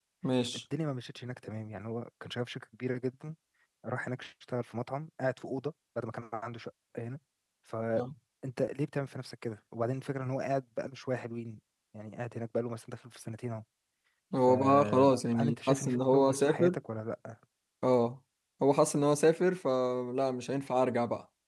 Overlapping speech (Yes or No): Yes